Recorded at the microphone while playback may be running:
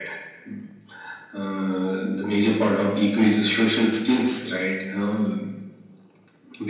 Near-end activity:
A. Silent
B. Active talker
A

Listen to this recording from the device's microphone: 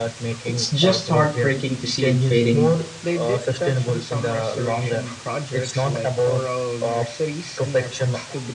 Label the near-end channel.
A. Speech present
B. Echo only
A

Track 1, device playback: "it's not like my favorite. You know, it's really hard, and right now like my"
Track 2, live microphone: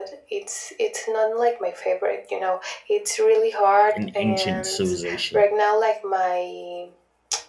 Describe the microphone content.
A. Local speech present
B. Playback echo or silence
A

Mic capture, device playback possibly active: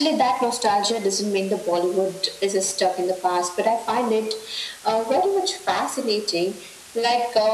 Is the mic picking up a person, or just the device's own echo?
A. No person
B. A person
A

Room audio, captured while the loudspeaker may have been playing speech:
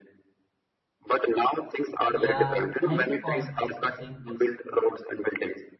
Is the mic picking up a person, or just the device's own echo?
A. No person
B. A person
B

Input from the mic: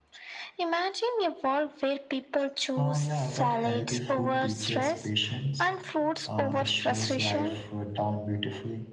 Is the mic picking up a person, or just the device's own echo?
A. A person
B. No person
A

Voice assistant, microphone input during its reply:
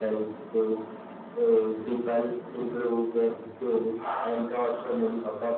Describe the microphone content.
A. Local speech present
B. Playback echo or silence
B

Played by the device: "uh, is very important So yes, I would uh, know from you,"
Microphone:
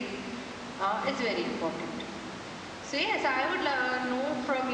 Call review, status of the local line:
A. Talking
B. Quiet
B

